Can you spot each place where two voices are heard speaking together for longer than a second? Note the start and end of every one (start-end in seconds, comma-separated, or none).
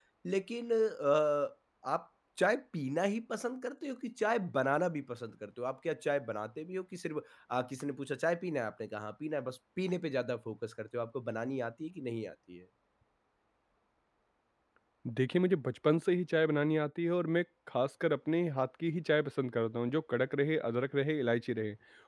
none